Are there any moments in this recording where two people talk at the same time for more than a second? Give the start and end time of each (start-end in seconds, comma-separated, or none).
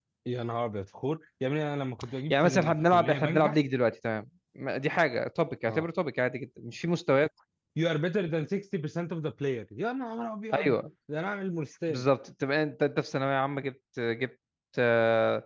2.3-3.6